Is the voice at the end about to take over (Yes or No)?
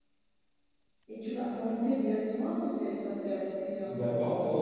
Yes